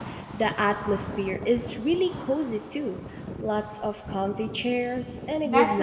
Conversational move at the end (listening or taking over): taking over